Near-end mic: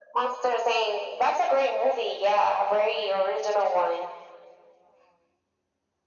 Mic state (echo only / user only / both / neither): echo only